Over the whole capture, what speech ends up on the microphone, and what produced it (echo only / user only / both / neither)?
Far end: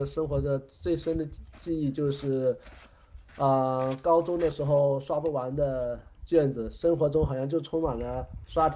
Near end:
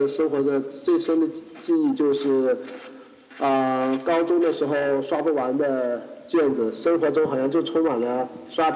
echo only